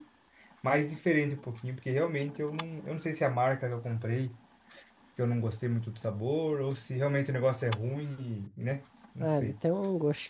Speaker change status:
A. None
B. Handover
B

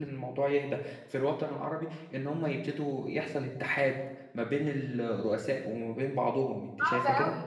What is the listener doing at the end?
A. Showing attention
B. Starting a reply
B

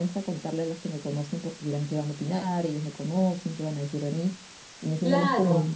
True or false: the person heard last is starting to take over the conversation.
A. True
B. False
B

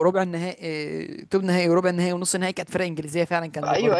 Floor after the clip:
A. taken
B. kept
A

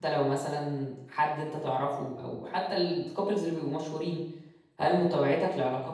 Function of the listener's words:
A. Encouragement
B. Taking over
A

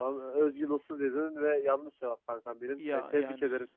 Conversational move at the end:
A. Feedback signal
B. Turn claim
A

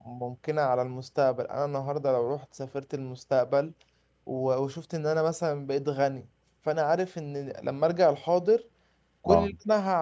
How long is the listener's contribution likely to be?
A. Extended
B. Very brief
B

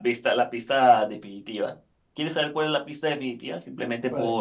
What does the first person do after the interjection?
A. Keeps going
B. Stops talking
B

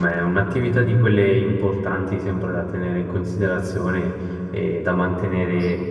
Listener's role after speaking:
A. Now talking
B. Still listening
B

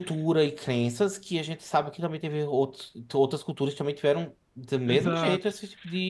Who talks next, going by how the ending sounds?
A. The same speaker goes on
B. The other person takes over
B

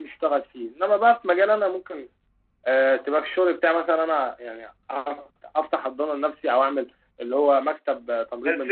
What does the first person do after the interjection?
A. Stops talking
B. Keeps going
A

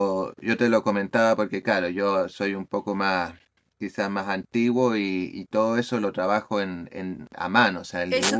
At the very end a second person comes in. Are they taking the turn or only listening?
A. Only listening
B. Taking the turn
B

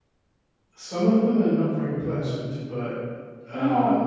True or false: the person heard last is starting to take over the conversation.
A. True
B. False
B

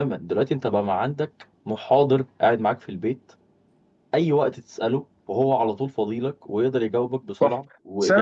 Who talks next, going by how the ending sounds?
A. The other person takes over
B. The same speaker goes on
A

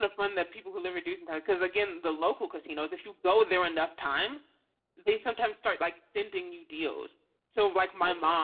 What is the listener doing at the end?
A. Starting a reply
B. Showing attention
B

